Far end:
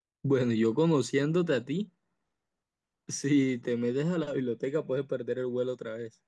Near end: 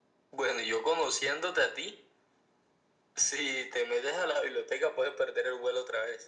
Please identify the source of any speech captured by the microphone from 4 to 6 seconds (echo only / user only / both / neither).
echo only